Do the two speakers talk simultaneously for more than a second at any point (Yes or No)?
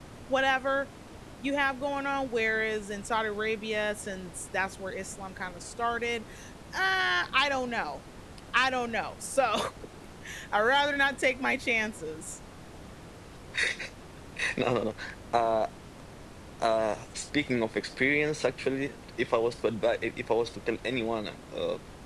No